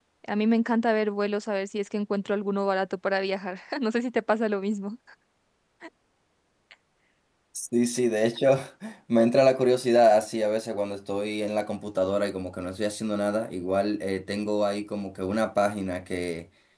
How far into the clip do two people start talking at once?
none

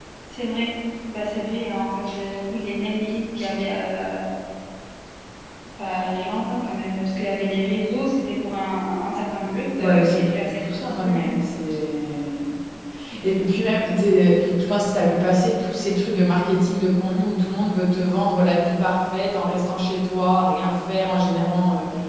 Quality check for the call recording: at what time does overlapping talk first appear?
9.8 s

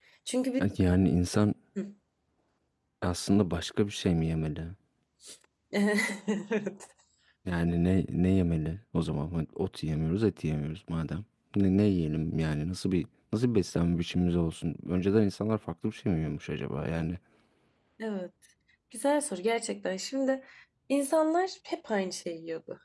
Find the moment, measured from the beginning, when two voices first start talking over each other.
none

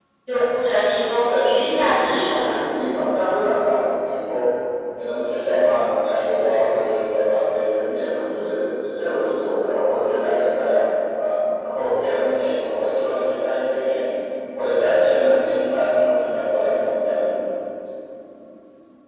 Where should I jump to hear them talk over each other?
1.3 s

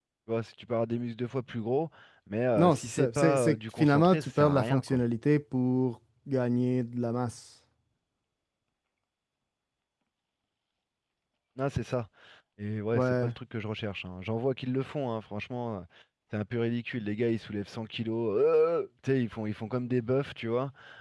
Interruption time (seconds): 2.5 s

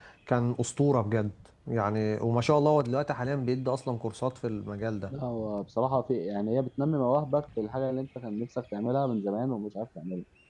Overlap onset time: none

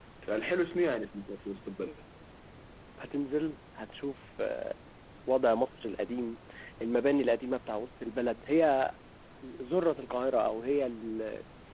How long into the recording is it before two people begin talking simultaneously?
none

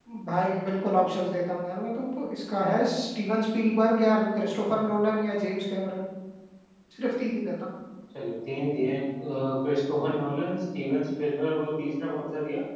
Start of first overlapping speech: none

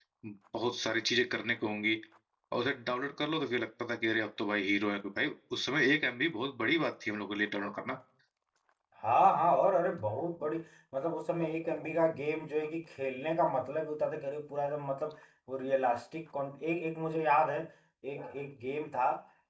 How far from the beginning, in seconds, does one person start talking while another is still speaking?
none

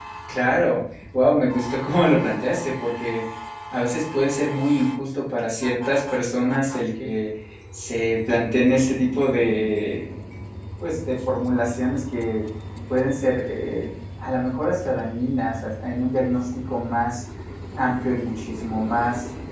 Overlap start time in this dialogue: none

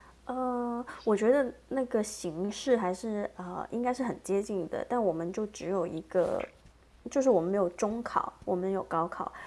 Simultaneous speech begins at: none

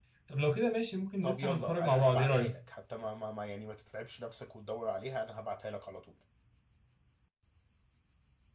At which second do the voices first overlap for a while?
1.2 s

